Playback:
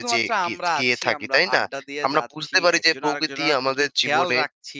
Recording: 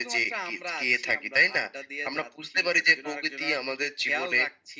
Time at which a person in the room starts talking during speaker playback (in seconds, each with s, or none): none